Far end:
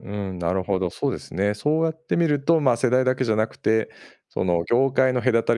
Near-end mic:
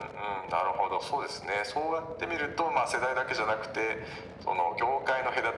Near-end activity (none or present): none